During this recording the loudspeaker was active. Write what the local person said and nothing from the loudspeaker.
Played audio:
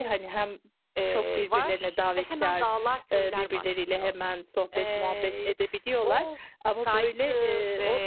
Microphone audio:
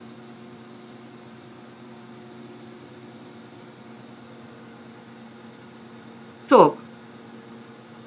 Çok.

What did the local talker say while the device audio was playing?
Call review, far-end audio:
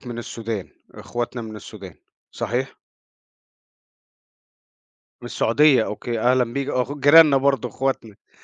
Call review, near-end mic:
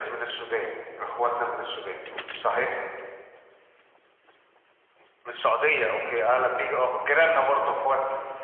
none

